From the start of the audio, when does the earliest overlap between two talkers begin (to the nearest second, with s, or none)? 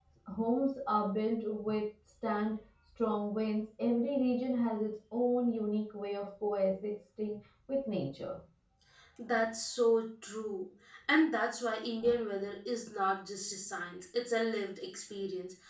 none